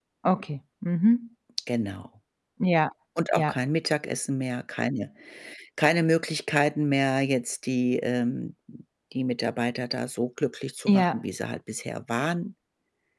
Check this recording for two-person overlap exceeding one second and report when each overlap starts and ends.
none

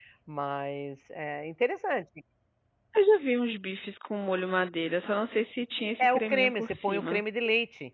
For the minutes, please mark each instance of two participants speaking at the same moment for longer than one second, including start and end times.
6.0-7.2

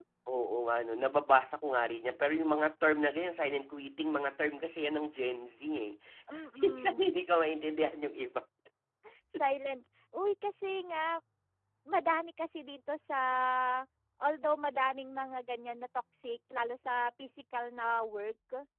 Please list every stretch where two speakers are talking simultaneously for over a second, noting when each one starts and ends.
none

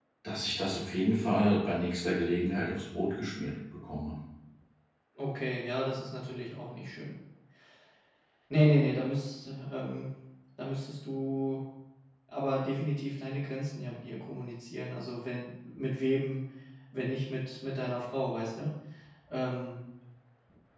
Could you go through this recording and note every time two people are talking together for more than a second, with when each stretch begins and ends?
none

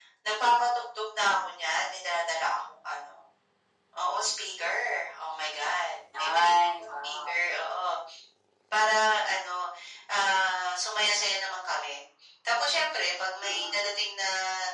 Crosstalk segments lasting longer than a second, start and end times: 6.2-7.4

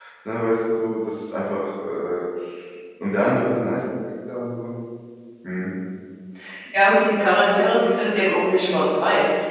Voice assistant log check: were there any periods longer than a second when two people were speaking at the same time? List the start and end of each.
none

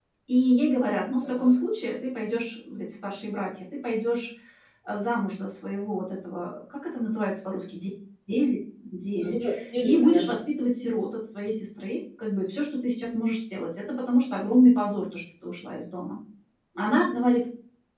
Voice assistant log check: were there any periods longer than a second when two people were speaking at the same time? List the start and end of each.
none

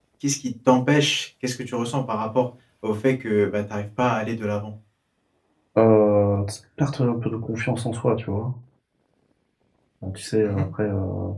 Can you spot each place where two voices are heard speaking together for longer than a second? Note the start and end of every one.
none

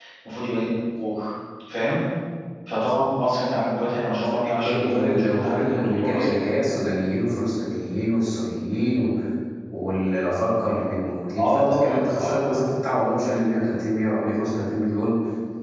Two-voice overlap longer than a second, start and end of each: 4.3-6.4, 11.4-12.6

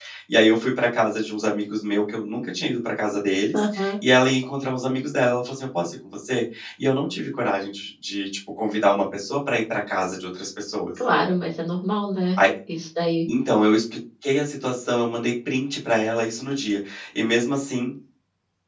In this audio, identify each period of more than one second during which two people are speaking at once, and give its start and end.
none

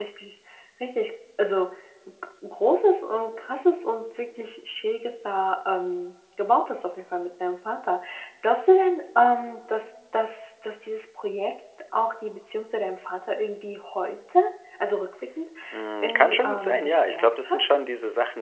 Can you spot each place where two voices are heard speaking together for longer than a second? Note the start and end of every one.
16.0-17.6

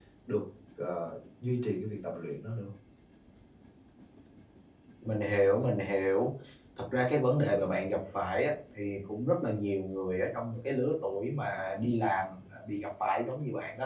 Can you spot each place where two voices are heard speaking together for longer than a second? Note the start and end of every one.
none

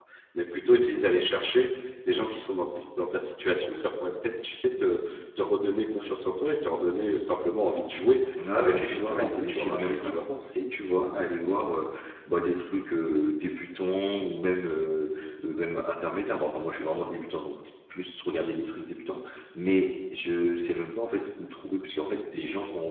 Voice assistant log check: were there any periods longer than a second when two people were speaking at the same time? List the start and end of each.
8.5-10.3

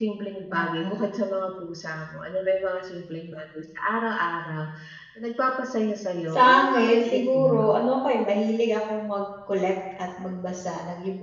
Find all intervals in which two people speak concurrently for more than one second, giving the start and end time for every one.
6.3-7.8

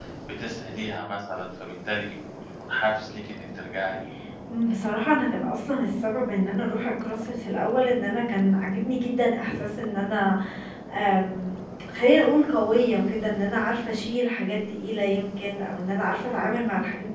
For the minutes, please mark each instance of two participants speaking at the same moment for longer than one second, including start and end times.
none

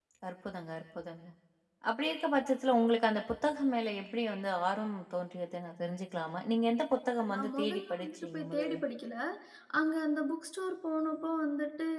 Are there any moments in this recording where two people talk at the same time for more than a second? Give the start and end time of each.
7.3-8.8

